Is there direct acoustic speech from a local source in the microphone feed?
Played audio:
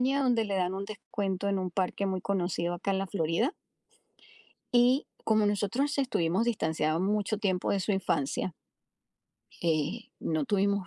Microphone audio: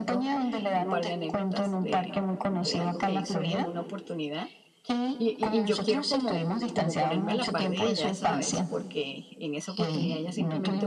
Yes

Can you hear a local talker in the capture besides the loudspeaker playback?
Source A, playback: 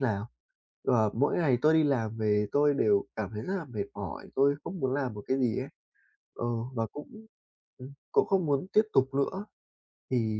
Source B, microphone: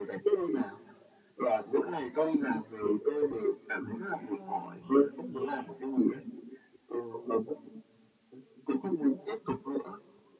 Yes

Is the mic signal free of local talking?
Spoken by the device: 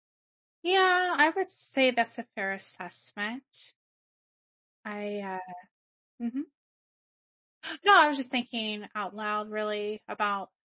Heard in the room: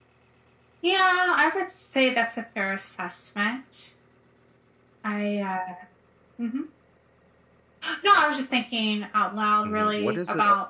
No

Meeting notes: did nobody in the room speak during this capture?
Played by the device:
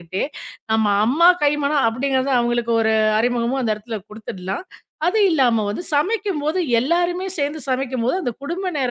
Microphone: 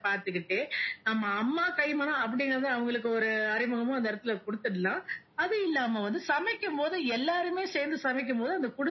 Yes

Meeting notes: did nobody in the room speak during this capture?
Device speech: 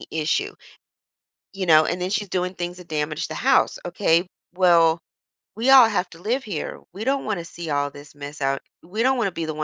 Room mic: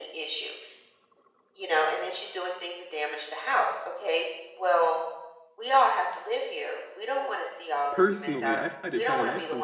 No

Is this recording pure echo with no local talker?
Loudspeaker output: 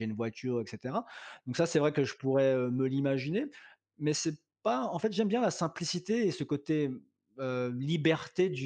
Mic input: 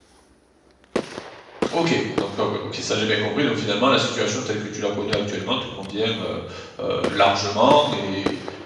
No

